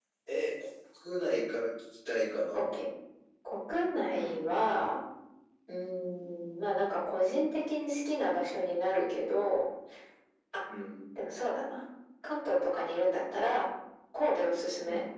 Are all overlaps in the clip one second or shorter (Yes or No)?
Yes